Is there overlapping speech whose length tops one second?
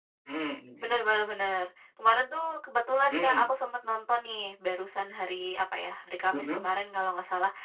No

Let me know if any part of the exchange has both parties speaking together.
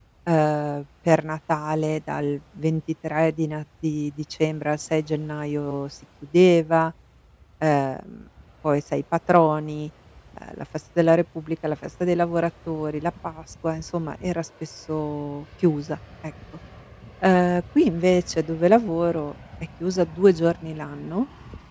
No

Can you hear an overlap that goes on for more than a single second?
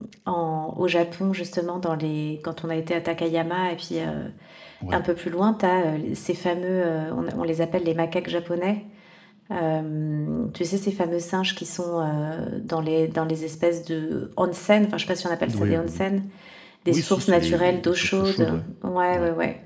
Yes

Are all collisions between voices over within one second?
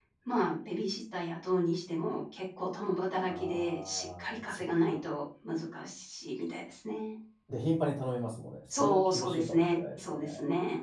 No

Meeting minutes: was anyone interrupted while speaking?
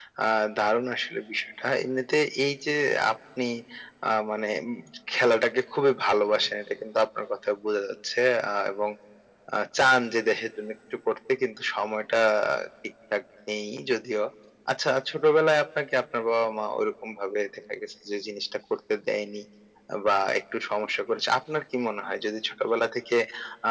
No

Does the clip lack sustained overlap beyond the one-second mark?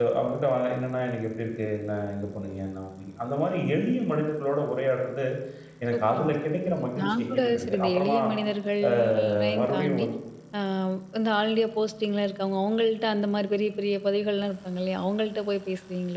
No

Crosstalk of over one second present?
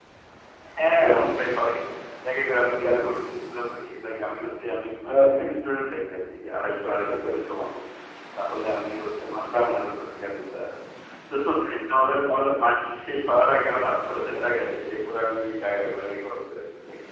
No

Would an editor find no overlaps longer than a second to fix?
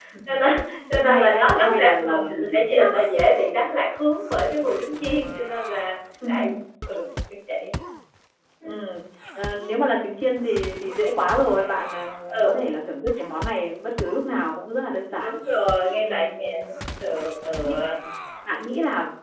No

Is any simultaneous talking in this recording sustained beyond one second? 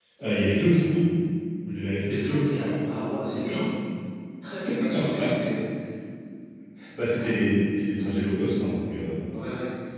Yes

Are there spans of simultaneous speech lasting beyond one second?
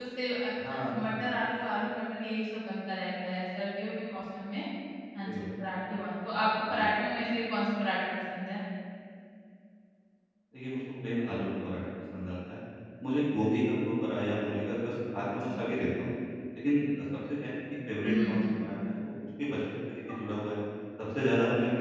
No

